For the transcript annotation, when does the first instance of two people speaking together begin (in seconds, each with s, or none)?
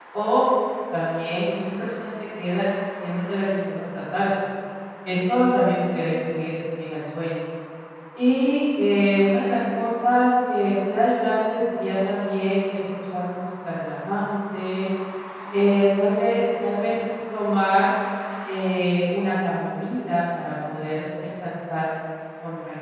none